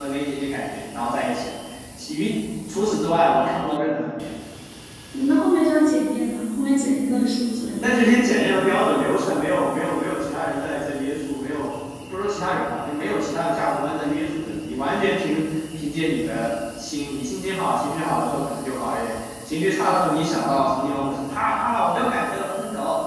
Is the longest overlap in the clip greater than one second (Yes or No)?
No